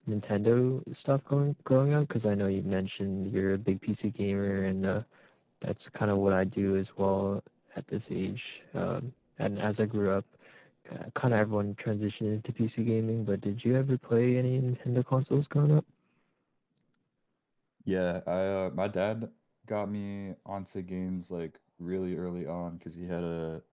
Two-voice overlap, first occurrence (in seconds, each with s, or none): none